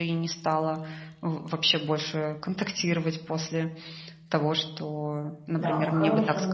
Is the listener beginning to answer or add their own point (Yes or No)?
Yes